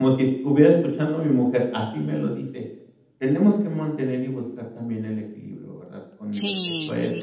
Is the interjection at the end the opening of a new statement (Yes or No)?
Yes